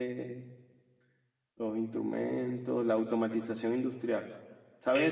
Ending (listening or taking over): listening